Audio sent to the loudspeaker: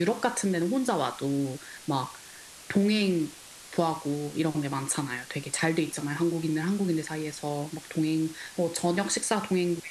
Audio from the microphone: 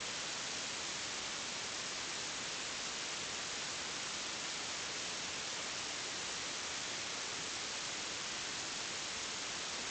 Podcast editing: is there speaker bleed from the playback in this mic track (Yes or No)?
No